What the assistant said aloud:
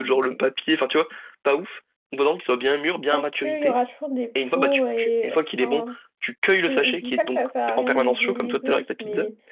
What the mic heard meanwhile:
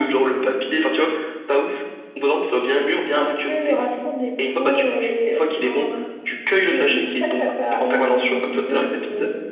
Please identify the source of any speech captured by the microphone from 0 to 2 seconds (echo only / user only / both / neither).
echo only